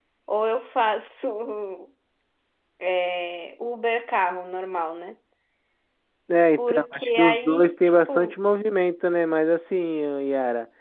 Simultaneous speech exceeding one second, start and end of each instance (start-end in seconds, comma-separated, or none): 6.6-8.3